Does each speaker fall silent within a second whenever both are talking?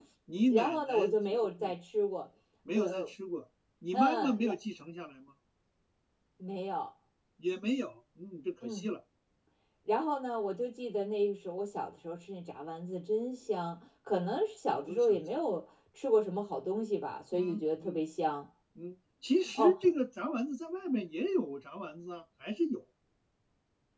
No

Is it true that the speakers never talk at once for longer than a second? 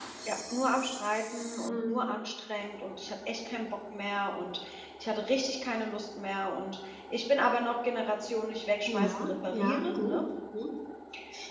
No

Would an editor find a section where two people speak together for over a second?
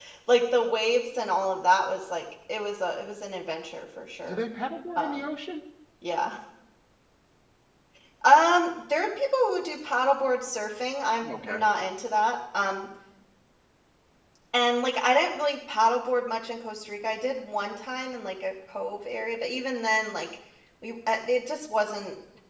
No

